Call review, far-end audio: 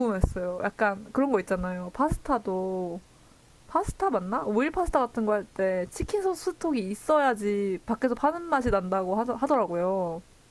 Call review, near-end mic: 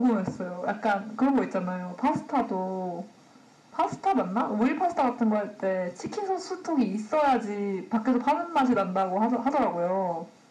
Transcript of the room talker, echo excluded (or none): none